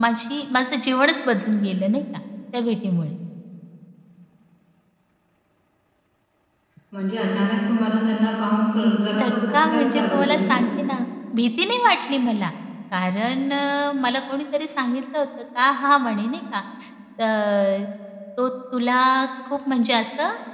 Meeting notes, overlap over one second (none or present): present